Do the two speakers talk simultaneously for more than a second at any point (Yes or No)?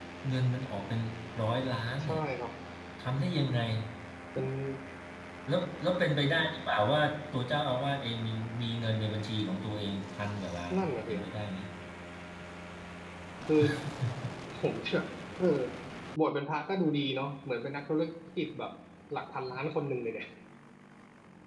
No